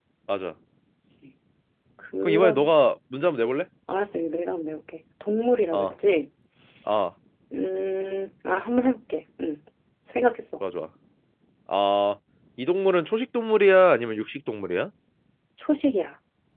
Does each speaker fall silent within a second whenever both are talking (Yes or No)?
Yes